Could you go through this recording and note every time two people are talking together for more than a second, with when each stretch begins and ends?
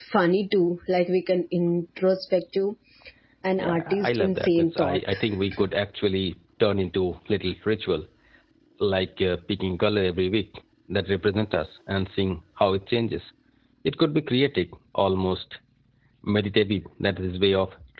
3.6-5.0

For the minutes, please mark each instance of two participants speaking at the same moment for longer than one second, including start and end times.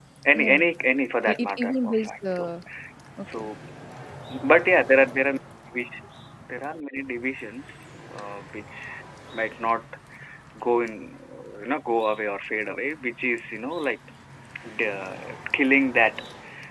1.3-2.5

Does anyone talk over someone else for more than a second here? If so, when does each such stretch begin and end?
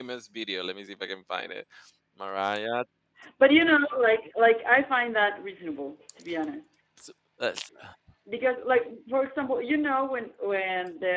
none

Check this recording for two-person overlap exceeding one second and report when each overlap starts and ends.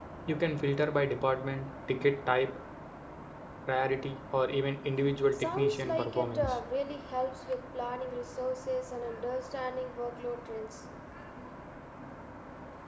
5.3-6.5

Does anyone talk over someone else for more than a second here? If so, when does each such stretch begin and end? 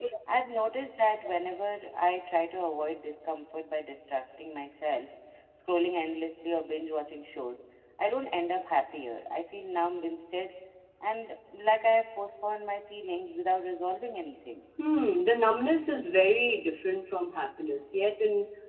none

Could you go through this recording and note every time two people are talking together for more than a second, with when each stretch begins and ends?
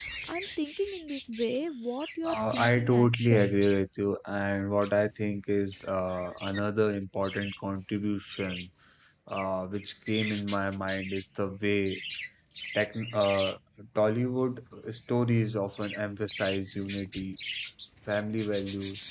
2.2-3.5

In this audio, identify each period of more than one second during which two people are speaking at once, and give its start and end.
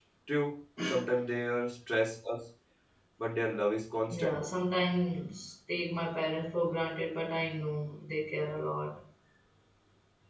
none

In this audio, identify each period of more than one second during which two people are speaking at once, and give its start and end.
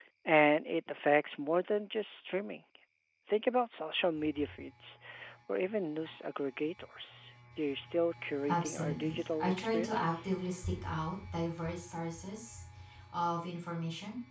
8.5-10.3

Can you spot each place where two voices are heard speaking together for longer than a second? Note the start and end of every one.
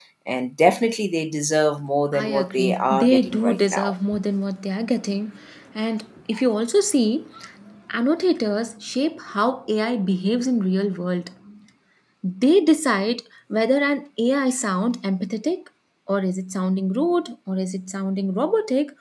2.1-3.9

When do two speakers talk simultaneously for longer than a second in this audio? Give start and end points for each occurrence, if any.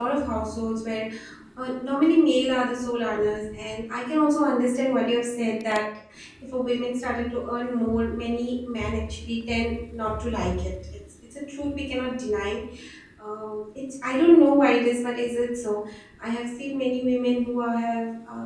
none

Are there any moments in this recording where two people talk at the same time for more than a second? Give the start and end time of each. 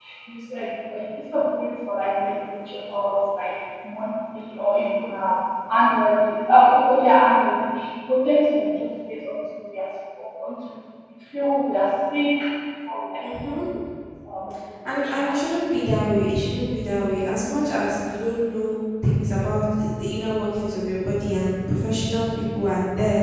none

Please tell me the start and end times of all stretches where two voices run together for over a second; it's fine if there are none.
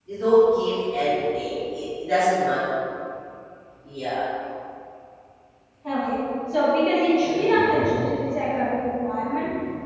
none

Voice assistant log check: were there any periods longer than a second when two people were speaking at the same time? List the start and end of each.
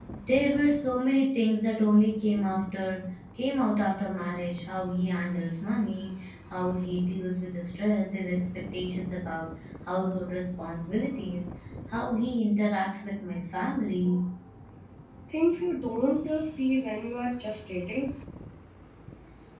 none

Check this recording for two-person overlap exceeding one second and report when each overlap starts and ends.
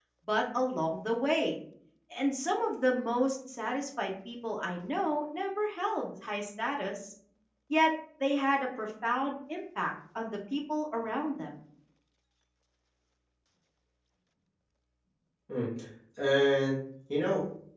none

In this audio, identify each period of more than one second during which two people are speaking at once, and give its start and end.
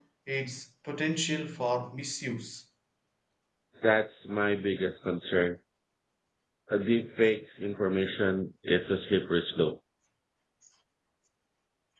none

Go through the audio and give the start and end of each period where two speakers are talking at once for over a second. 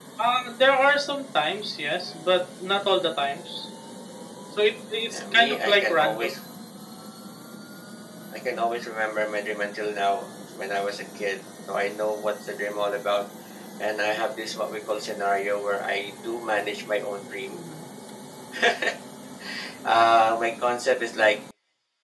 5.1-6.3

